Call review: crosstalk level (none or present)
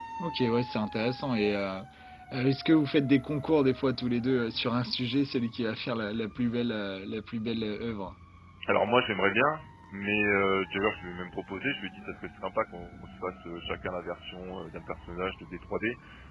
none